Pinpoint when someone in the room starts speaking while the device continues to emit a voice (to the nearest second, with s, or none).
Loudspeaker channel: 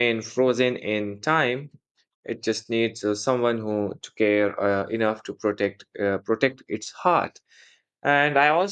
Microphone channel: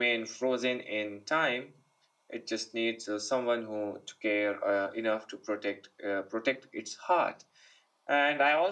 none